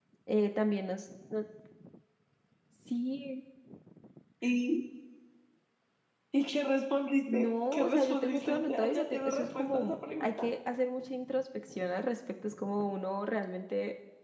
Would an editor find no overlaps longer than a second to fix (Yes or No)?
No